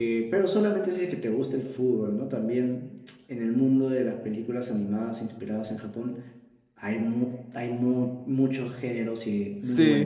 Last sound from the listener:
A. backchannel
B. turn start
B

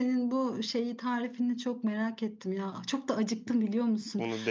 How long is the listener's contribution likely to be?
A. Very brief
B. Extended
A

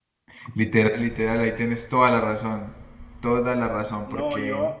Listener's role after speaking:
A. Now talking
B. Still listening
A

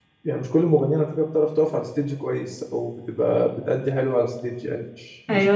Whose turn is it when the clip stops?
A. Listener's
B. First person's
A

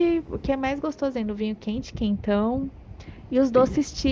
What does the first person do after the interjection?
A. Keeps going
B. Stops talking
A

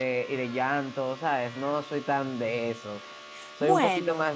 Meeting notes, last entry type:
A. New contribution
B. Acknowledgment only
B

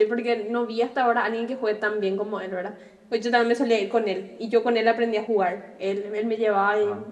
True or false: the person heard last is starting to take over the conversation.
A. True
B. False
B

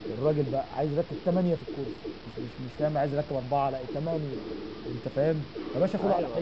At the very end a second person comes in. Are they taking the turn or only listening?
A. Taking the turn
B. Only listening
B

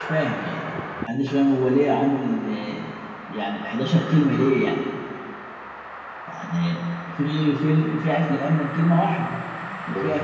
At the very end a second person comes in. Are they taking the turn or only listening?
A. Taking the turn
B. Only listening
B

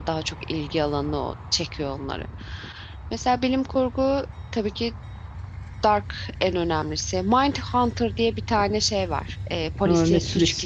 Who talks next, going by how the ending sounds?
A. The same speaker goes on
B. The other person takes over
B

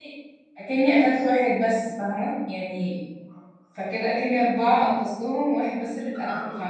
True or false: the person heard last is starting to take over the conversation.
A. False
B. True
B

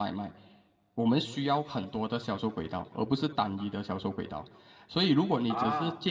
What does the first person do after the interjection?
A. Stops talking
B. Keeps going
B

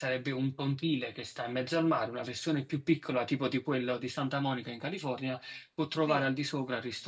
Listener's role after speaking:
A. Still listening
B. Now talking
A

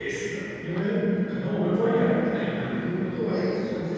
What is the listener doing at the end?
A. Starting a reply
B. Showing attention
B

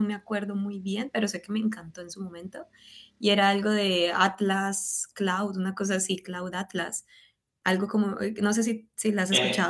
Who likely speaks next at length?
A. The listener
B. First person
A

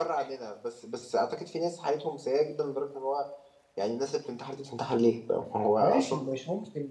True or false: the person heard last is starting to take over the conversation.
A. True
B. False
A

